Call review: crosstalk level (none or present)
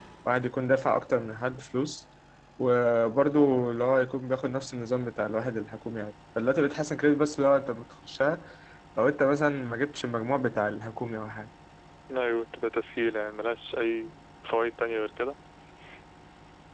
none